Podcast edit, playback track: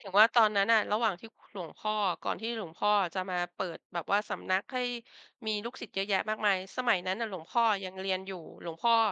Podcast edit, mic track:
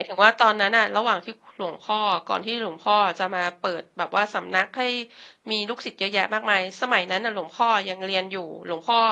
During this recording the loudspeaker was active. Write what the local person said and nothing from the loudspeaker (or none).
none